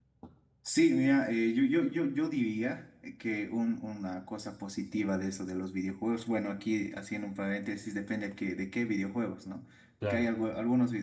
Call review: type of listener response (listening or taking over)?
listening